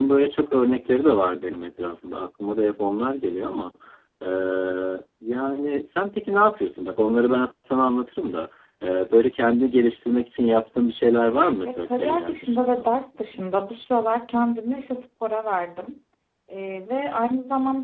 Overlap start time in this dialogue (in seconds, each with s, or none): 11.7 s